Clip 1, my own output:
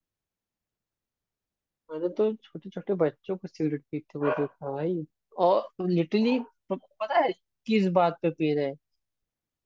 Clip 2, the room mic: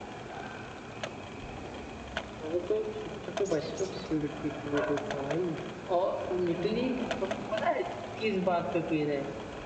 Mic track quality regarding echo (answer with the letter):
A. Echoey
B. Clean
A